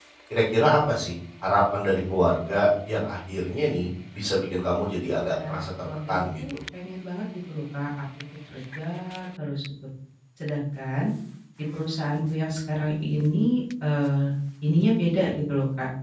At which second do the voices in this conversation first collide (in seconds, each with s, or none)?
5.3 s